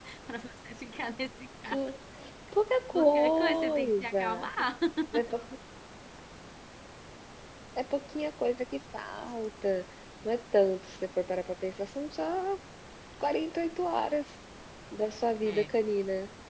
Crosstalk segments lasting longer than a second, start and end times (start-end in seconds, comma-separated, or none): 2.9-4.5